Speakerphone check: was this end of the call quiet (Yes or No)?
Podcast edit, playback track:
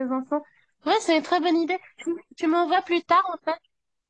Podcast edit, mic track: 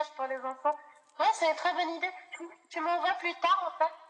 Yes